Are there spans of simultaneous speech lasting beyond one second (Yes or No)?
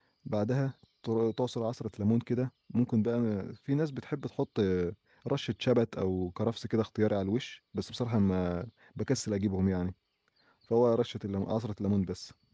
No